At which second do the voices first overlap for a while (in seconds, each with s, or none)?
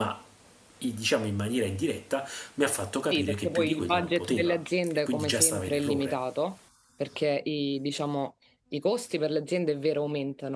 3.1 s